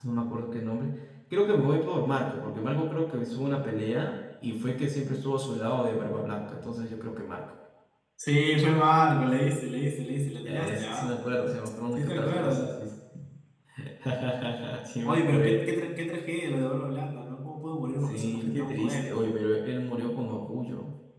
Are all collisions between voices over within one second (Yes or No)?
No